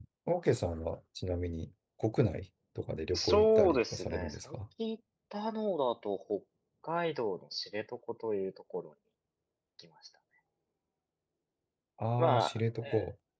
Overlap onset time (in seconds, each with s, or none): 3.1 s